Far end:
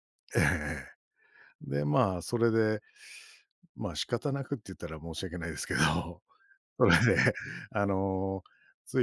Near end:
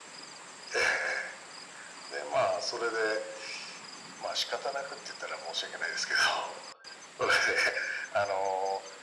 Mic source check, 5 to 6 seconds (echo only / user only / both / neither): echo only